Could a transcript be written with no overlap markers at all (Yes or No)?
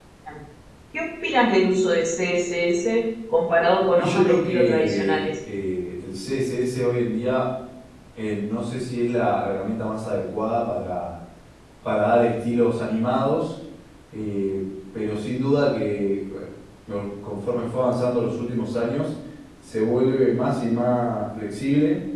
No